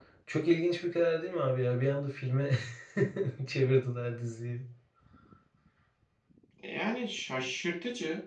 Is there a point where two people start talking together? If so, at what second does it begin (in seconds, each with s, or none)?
none